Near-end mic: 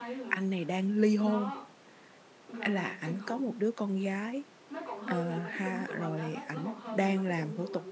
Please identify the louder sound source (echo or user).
user